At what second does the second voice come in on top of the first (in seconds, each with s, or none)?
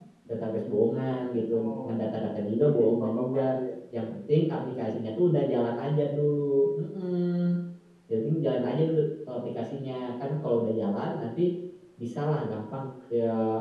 1.5 s